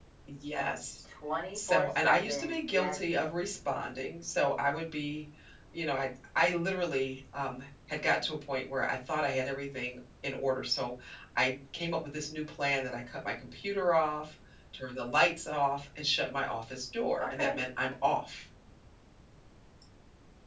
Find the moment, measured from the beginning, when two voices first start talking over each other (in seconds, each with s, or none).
1.6 s